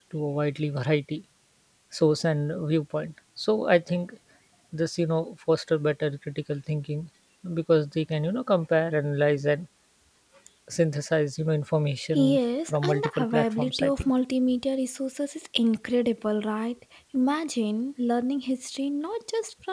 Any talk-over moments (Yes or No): Yes